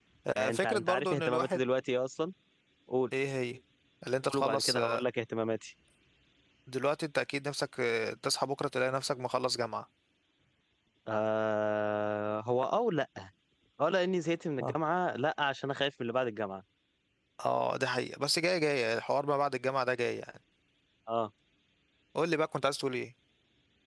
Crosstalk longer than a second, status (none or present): present